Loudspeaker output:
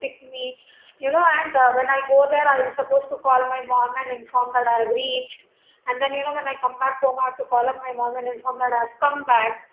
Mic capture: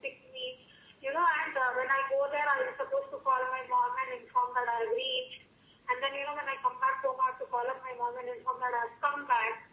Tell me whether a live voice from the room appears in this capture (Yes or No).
No